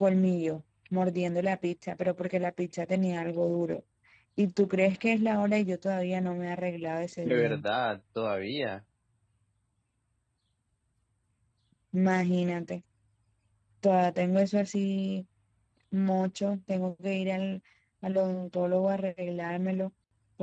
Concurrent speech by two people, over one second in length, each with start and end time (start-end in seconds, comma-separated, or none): none